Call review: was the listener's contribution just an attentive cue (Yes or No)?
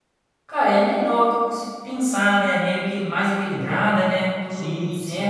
No